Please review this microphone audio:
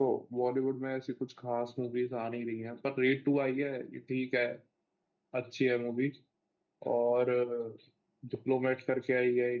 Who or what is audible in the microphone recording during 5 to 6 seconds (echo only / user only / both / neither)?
user only